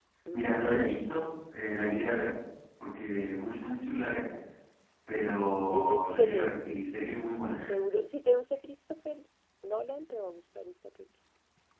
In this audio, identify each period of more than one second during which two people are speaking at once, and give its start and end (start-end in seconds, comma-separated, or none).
5.7-7.1